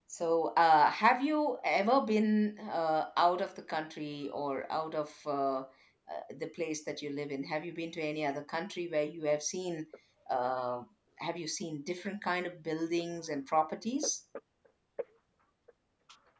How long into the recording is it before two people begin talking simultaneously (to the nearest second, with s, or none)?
none